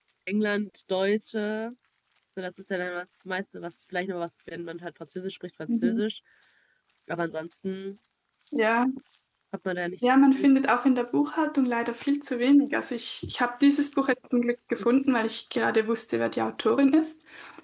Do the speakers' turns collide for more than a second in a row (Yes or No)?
No